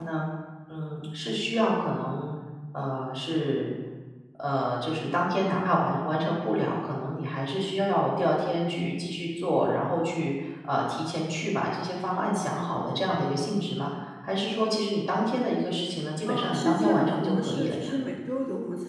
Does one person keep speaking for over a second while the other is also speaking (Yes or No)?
Yes